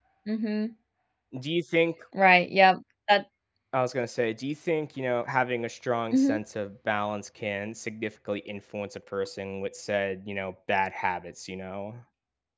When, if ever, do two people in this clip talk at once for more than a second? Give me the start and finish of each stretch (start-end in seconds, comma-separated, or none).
none